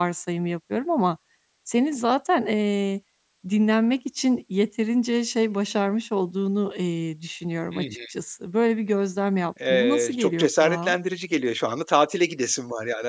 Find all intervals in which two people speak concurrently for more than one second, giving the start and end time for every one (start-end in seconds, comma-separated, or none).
9.7-11.0